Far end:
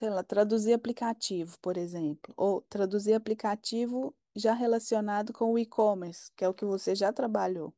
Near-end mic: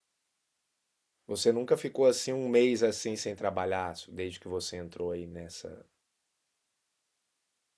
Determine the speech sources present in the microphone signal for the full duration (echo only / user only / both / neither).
user only